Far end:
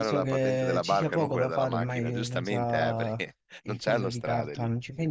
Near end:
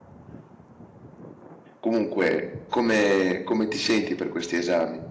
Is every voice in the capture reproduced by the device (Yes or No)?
No